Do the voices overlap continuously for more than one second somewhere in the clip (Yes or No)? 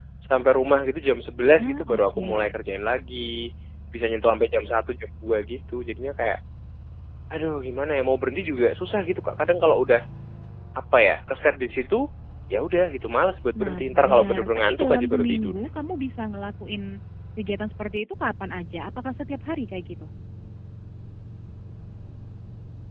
Yes